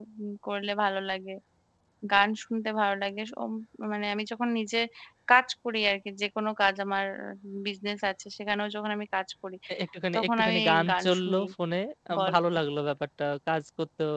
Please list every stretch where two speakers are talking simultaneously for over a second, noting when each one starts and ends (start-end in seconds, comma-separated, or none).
10.2-11.4